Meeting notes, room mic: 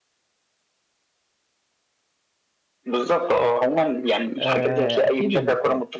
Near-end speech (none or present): present